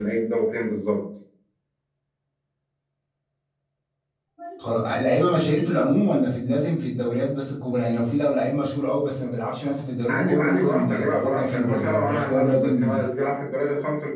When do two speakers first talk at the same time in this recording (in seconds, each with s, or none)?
10.1 s